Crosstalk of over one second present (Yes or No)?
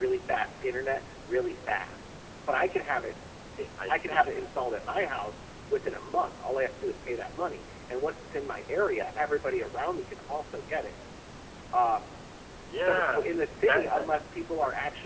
Yes